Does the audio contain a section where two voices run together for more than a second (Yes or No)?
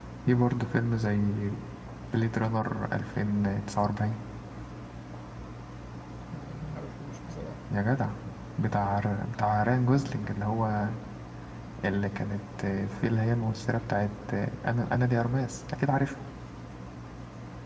No